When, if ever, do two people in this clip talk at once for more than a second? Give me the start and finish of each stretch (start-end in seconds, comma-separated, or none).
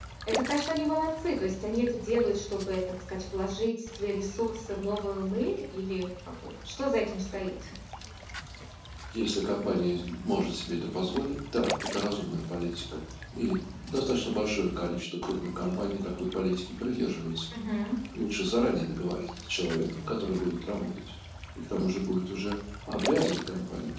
none